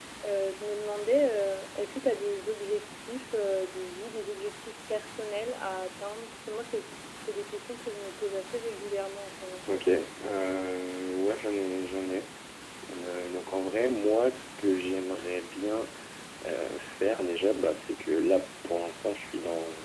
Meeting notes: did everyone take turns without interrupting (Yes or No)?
Yes